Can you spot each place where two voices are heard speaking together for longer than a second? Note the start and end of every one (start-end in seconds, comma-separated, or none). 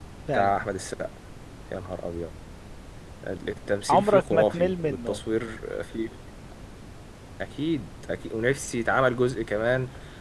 3.9-5.2